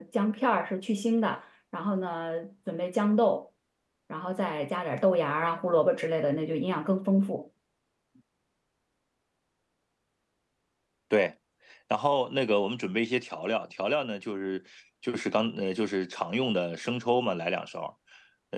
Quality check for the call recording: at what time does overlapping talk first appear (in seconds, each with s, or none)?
none